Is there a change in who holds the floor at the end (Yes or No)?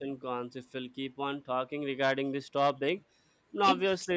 No